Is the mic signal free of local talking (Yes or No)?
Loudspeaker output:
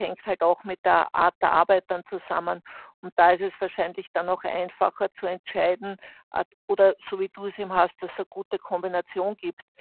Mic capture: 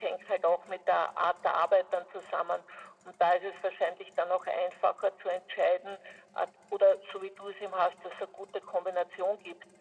Yes